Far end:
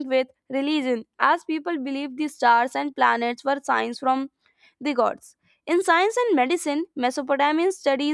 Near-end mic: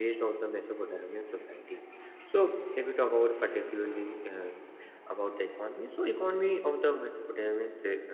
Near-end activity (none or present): present